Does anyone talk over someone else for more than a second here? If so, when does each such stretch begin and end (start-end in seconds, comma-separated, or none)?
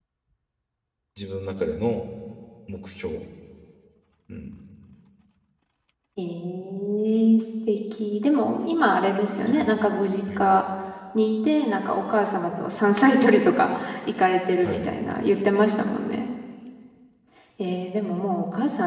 none